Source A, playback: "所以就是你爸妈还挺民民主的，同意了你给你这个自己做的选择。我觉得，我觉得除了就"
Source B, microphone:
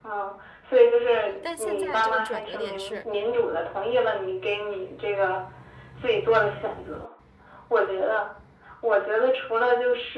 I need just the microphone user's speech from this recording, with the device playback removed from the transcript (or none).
但现在这个转折点是，